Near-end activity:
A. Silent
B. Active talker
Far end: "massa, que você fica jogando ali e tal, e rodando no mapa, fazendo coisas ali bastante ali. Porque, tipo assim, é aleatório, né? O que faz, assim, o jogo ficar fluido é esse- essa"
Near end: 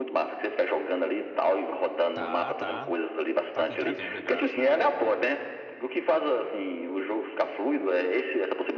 B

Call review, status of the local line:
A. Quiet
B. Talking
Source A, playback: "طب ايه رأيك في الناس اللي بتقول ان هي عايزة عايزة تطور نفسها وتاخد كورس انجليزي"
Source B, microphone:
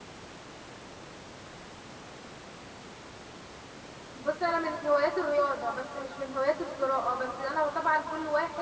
B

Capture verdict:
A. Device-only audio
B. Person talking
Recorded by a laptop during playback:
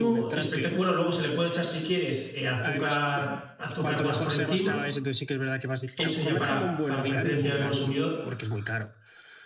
B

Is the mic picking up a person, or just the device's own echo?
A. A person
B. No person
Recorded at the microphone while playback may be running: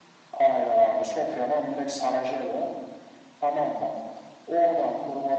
B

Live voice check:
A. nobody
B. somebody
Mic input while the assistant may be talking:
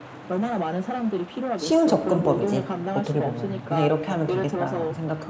B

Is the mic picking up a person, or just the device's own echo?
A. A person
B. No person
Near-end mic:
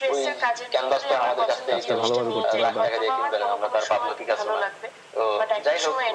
A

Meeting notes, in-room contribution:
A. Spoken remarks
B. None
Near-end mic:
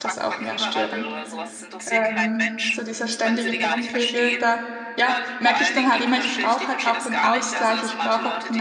A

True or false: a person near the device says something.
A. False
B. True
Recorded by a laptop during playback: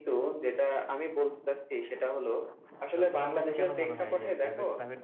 B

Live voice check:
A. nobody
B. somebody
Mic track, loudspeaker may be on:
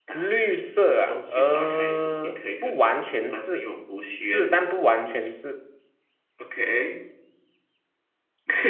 B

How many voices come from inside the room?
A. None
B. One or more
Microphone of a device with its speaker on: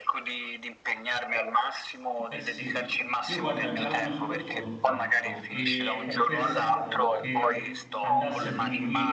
B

